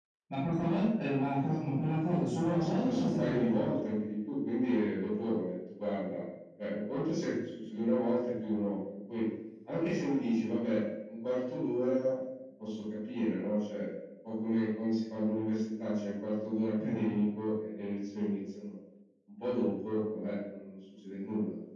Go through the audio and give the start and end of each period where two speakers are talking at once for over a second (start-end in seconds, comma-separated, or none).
2.4-3.8